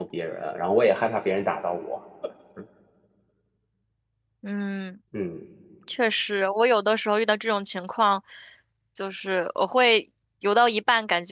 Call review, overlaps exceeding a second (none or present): none